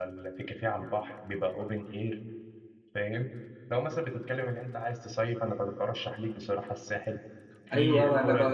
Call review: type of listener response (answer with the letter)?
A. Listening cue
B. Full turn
B